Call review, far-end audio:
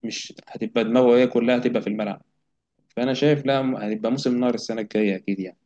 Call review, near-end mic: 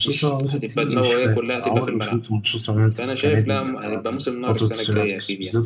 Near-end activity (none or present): present